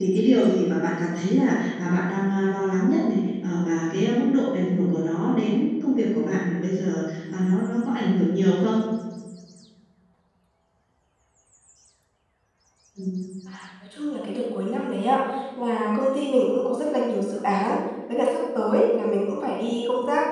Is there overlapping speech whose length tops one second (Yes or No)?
No